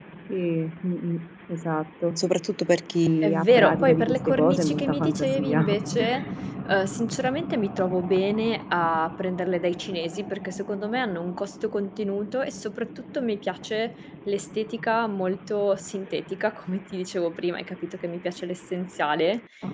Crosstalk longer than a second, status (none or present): present